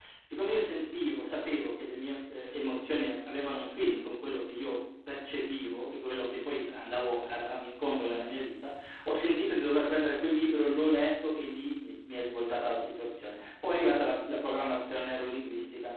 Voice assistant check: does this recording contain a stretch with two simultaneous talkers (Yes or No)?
No